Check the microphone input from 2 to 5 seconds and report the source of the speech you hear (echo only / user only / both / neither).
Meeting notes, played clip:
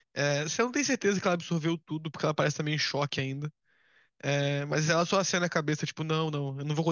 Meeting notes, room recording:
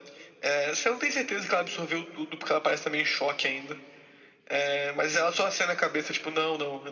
echo only